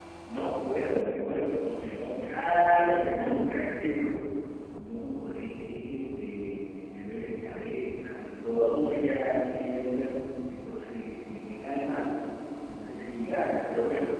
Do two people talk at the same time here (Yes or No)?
Yes